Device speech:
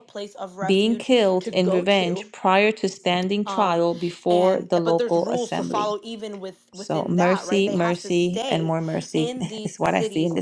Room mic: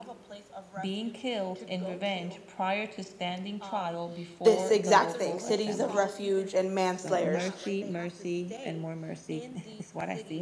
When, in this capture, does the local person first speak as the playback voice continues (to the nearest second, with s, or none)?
4 s